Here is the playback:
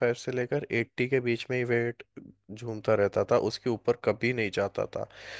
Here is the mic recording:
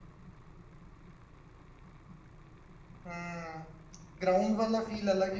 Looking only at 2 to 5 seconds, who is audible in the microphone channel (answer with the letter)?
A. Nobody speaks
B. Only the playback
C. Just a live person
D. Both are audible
C